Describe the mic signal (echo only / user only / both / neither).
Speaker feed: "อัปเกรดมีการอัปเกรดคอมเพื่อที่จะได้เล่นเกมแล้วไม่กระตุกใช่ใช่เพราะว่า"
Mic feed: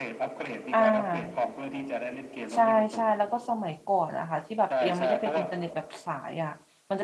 both